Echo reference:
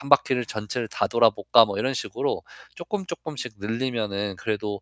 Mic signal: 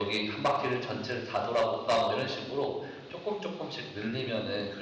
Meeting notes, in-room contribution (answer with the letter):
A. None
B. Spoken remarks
A